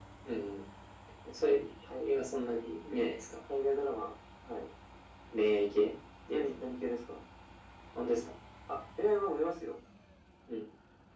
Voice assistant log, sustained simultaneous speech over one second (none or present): none